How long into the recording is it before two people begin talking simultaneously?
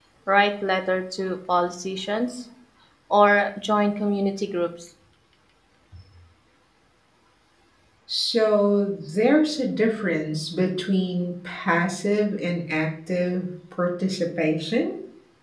none

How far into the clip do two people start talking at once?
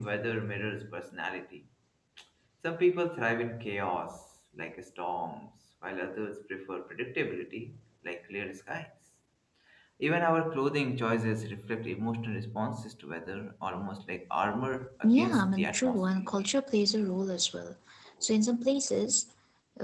15.0 s

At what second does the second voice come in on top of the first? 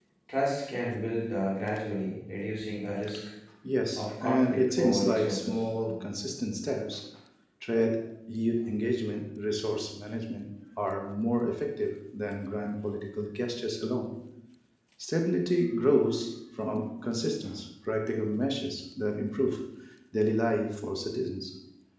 4.0 s

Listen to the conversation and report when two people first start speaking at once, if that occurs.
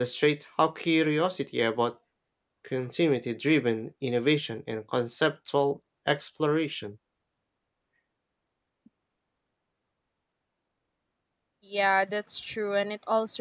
none

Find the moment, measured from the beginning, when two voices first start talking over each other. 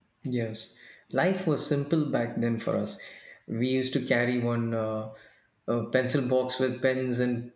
none

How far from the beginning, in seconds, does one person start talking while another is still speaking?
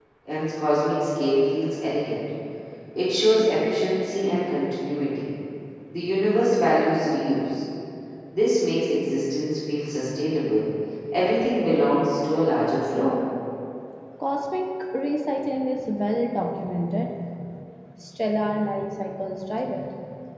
none

